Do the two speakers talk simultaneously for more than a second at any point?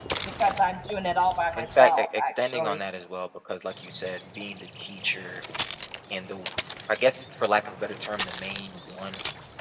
Yes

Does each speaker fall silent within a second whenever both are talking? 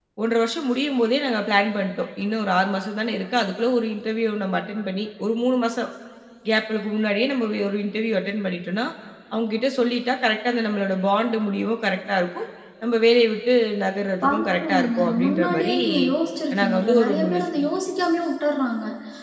No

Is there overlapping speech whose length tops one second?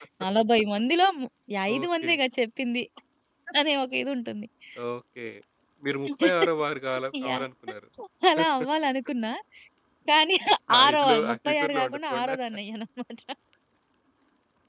Yes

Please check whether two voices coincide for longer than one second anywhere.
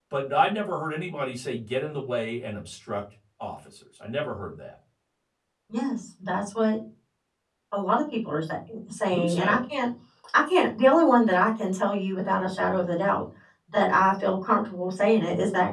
No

